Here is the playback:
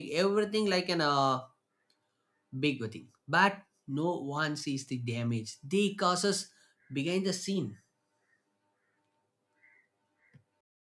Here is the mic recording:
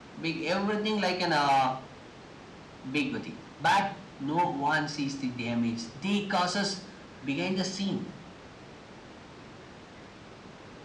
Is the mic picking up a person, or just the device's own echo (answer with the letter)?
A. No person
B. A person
A